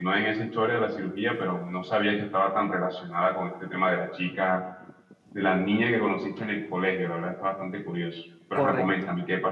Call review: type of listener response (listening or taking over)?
taking over